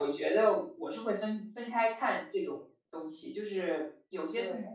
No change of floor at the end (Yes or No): Yes